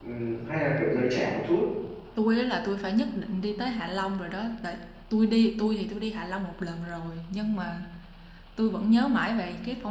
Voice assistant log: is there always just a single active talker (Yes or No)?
Yes